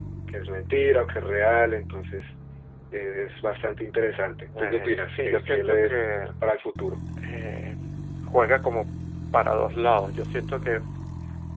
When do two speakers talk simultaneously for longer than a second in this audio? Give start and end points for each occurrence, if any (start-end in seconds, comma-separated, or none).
4.6-6.0